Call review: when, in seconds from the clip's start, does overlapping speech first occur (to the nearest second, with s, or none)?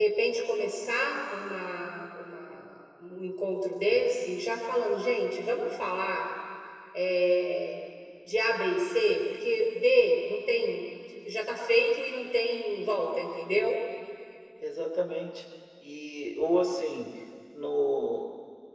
none